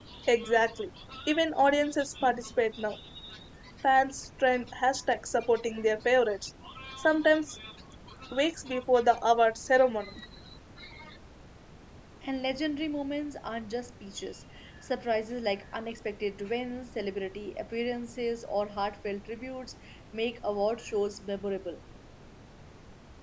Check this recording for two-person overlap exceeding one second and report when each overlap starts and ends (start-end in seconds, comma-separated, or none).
none